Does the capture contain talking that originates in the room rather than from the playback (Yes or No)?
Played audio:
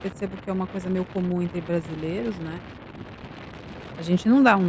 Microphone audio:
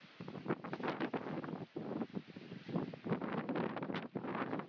No